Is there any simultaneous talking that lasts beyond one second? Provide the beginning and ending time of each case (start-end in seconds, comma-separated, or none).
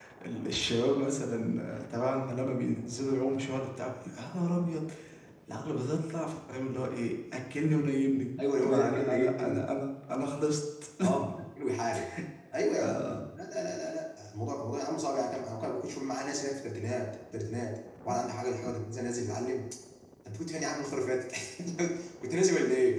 8.4-9.6